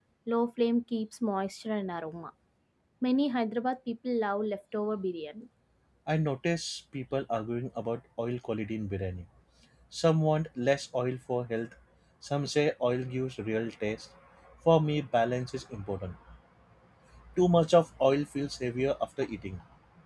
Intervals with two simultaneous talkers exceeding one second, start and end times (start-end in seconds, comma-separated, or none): none